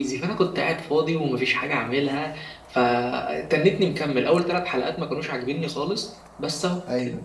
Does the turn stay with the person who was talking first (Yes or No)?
Yes